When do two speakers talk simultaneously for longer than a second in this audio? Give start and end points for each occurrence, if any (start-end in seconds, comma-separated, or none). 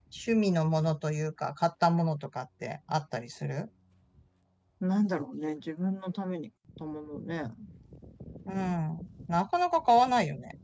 none